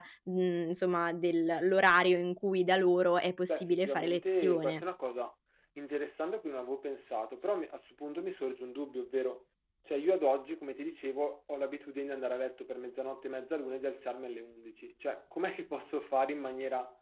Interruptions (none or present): present